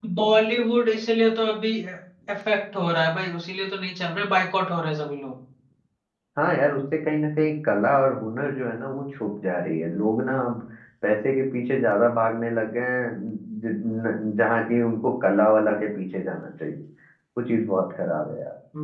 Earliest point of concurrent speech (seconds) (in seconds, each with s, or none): none